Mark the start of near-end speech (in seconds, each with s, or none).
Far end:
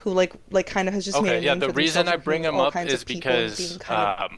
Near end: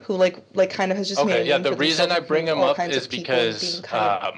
none